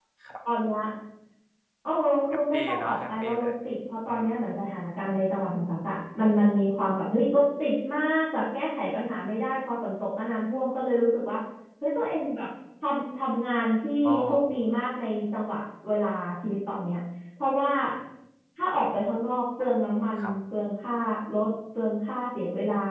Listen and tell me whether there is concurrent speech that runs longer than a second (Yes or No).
Yes